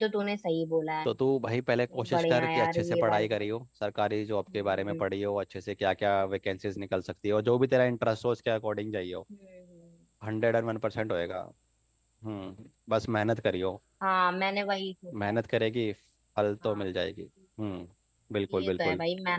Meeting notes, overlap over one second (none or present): present